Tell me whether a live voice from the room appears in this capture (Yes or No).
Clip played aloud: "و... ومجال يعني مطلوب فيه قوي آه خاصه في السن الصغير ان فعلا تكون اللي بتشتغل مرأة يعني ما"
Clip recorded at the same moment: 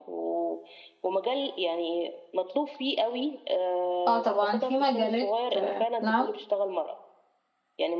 Yes